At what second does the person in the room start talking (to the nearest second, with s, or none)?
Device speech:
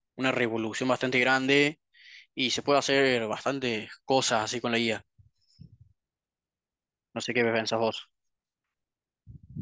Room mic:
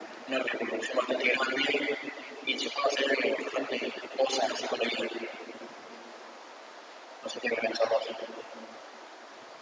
none